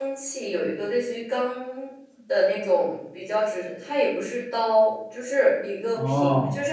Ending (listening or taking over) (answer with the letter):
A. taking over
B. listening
B